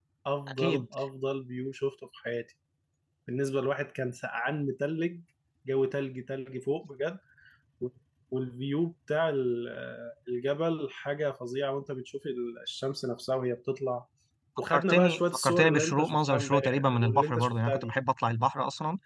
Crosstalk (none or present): present